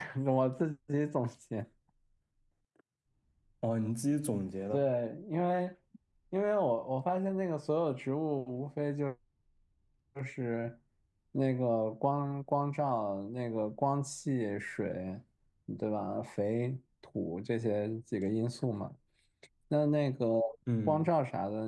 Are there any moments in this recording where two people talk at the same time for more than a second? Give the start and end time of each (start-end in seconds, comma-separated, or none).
none